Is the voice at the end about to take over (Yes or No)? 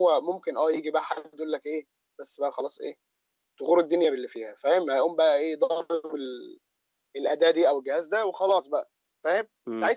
No